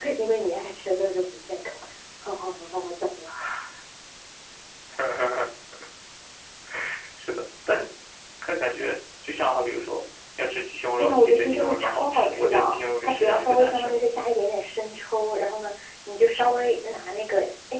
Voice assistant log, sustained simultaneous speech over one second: present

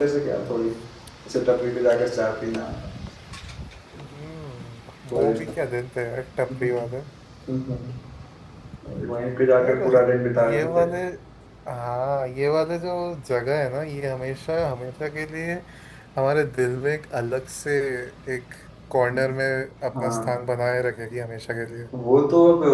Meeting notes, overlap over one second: none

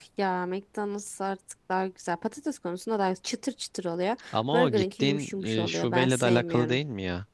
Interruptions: present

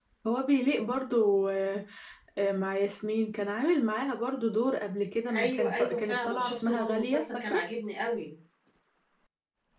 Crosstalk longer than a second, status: present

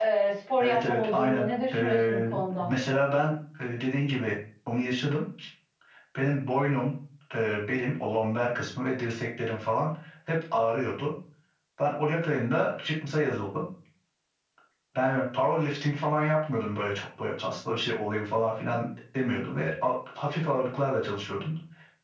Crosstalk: present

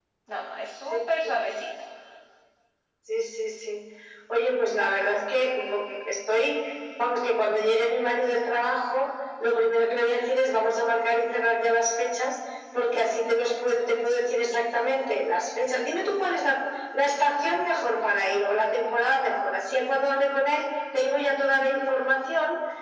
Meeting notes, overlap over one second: none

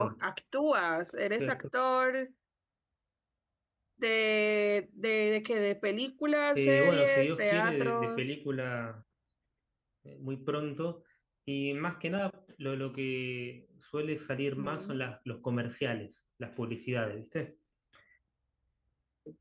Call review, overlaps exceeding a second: present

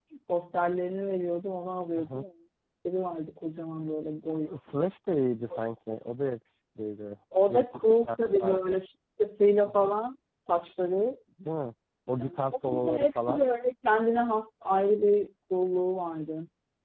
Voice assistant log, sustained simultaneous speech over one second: present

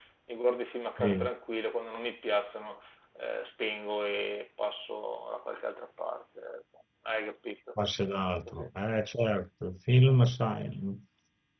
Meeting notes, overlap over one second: none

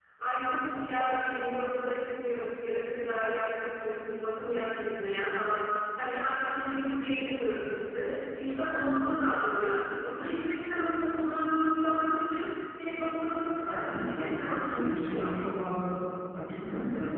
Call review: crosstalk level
present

